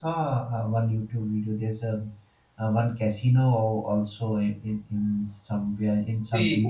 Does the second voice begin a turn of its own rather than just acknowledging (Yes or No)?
Yes